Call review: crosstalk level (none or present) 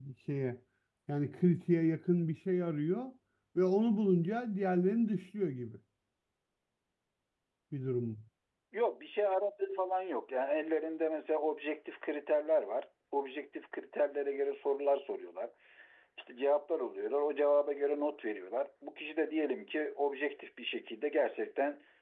none